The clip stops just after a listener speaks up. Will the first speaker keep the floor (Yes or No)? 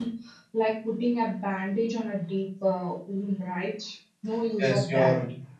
No